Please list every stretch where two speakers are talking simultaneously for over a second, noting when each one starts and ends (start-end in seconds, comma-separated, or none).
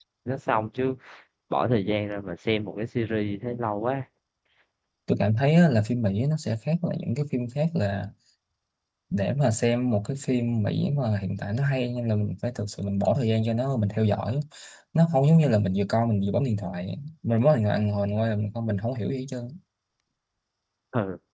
none